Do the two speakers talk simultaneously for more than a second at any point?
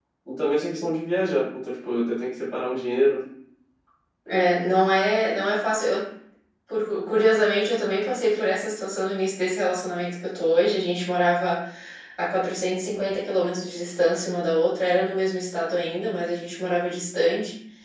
No

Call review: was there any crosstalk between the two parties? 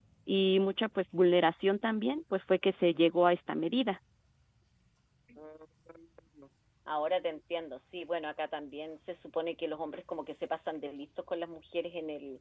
No

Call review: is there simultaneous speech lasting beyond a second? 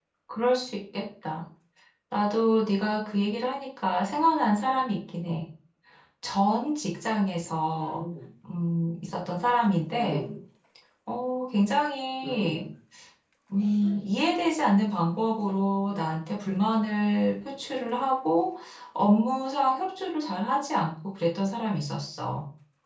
No

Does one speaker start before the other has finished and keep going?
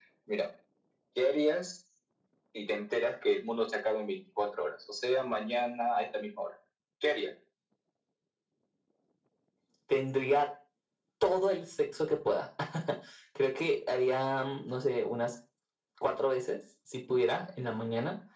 No

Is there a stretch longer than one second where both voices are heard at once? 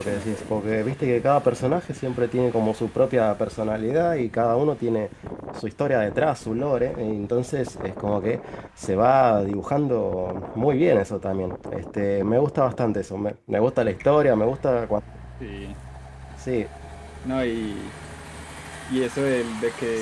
No

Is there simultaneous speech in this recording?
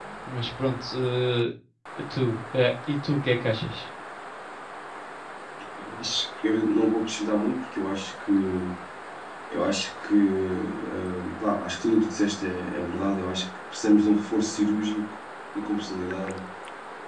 No

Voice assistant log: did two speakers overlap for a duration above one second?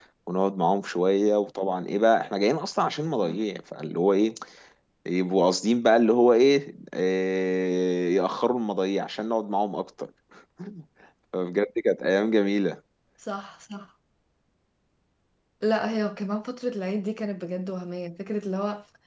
No

